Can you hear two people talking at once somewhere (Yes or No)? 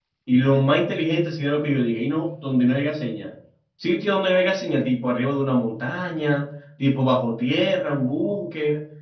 No